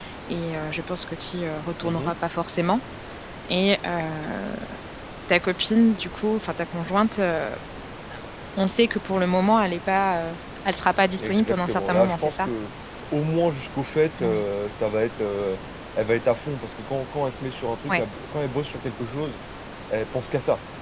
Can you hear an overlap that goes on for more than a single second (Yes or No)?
Yes